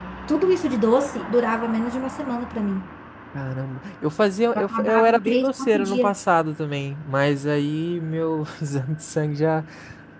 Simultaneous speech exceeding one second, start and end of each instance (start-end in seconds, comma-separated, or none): 4.5-6.1